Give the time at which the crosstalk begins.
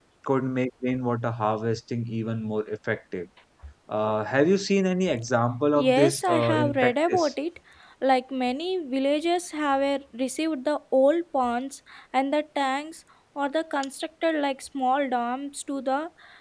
6 s

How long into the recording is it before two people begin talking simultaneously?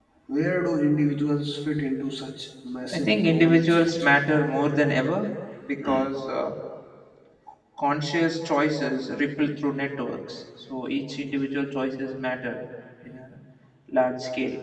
3 s

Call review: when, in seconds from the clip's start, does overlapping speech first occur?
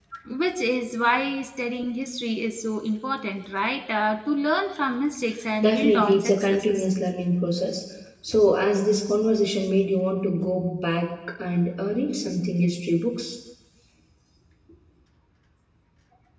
6 s

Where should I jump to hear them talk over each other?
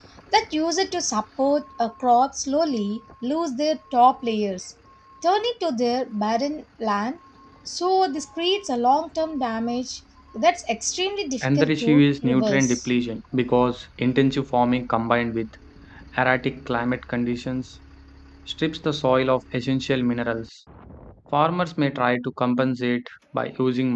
11 s

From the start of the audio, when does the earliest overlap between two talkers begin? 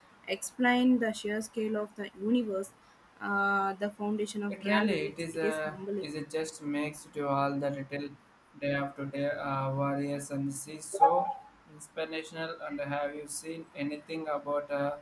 5 s

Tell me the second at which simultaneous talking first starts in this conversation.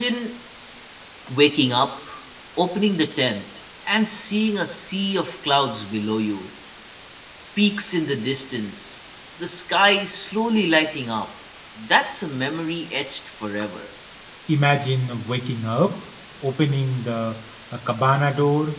none

